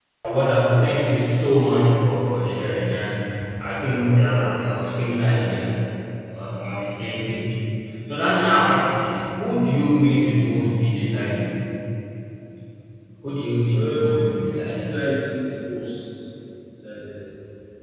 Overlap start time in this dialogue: 13.7 s

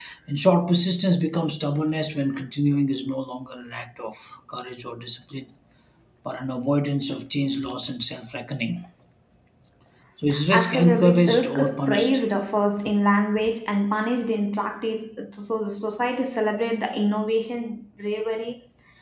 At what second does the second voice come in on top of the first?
10.5 s

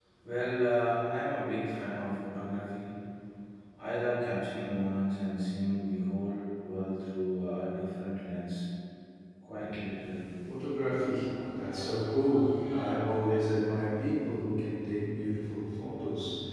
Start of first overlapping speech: none

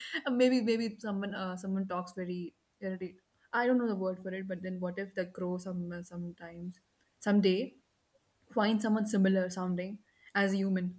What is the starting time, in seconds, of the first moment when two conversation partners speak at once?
none

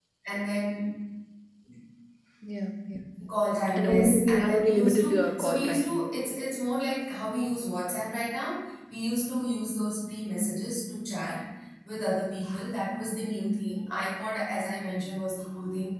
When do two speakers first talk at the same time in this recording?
3.8 s

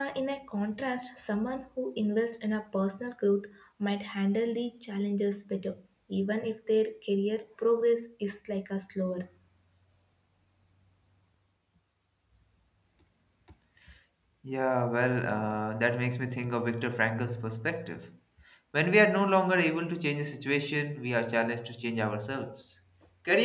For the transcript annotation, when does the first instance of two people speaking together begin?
none

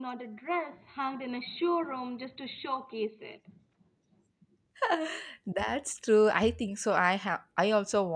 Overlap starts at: none

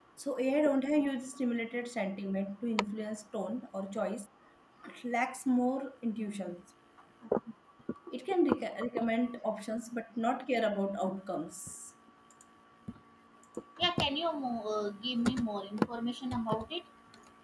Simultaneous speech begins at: none

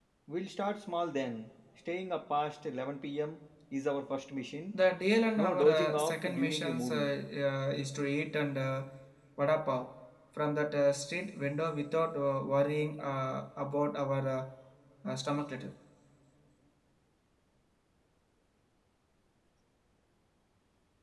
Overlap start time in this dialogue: 5.4 s

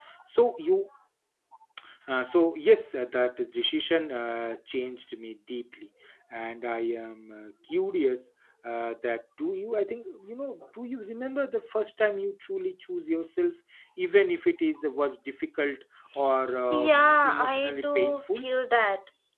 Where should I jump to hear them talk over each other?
16.7 s

